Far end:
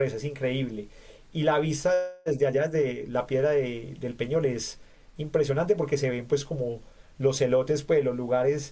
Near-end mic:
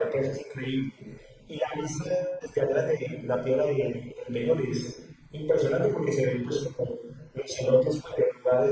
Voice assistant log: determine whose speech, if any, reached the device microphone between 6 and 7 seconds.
echo only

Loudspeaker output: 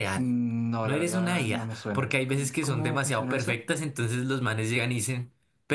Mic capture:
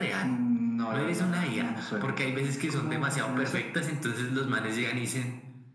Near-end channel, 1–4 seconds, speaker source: echo only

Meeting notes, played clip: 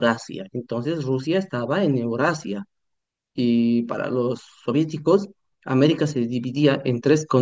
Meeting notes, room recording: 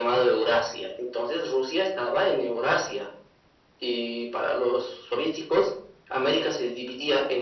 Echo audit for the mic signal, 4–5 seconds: echo only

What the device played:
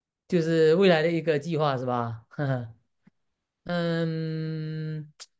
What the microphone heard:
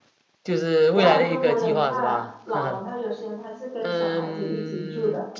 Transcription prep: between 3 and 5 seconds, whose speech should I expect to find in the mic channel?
both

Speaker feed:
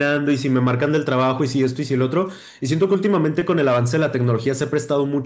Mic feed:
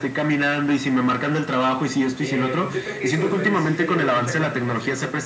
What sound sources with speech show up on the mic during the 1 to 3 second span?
both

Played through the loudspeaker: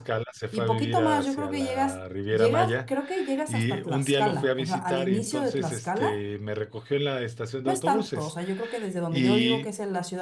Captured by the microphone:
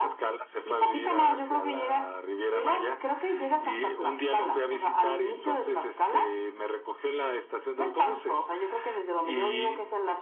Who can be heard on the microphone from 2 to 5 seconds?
echo only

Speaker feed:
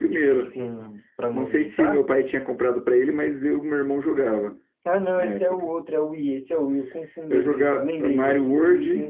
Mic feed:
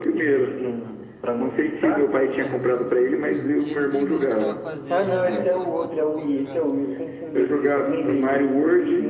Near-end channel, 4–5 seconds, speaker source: both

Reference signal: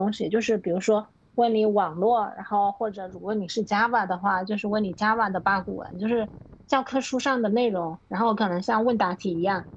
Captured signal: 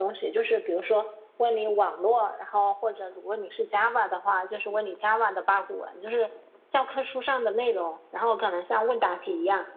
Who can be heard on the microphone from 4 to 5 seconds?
echo only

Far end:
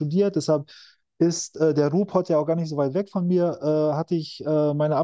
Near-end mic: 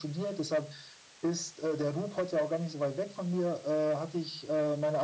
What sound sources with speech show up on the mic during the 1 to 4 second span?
echo only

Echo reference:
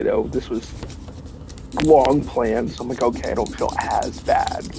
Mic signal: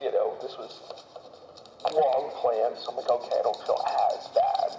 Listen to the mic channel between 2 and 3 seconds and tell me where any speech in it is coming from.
echo only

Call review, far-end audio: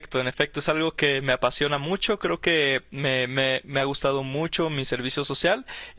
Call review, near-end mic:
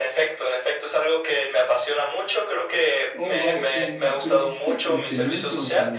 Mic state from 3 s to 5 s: both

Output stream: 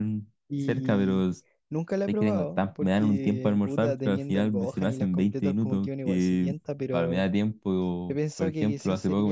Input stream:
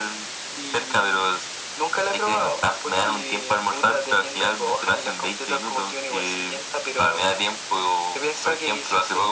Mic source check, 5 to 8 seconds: echo only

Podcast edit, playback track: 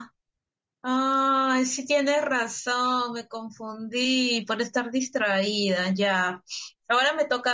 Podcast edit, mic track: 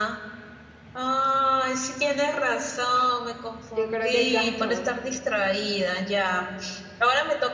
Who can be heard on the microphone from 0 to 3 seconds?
echo only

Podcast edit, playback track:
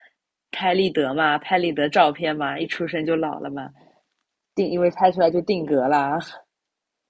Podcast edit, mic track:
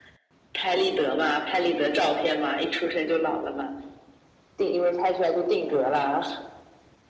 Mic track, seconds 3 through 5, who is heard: echo only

